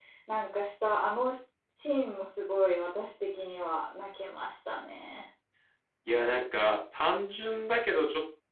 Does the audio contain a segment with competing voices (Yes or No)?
No